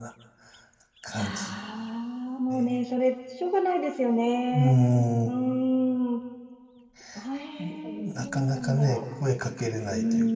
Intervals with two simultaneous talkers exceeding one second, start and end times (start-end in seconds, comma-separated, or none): 7.6-9.0